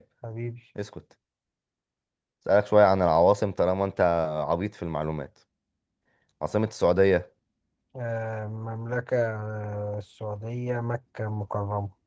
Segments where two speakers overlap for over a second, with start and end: none

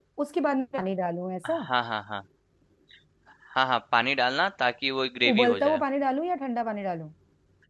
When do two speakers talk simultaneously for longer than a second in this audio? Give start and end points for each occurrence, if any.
none

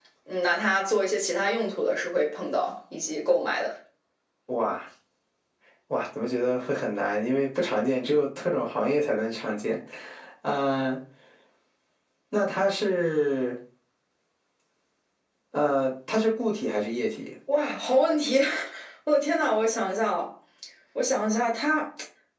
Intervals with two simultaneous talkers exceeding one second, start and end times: none

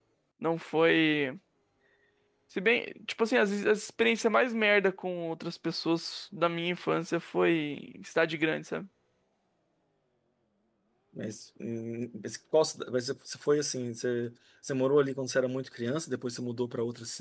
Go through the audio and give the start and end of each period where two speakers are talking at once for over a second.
none

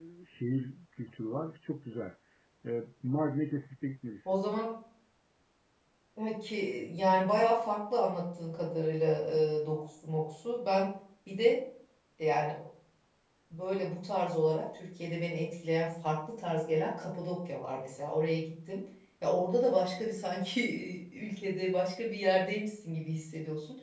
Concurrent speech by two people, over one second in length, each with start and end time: none

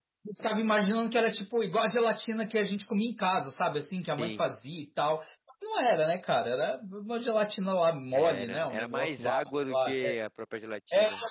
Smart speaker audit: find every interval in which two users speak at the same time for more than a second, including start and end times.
8.1-9.9

